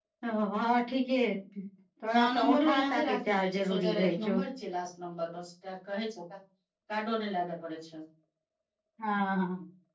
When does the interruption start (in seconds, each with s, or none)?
2.1 s